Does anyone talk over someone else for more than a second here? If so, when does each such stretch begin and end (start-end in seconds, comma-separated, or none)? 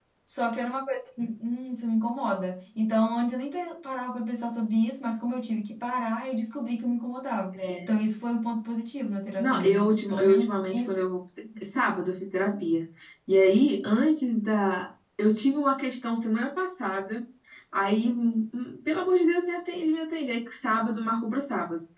9.4-10.9